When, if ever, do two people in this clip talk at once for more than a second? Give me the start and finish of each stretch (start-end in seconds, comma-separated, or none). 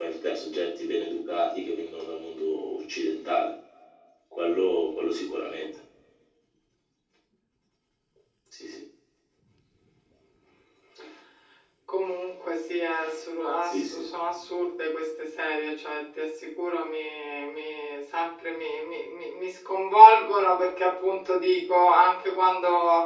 none